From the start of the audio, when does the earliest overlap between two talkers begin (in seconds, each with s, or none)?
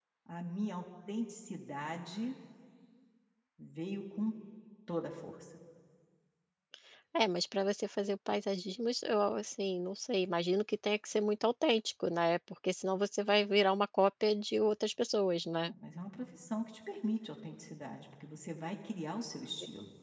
none